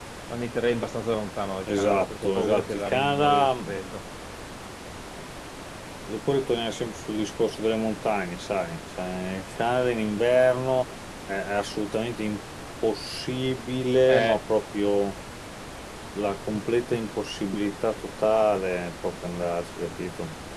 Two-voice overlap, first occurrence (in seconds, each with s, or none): 1.8 s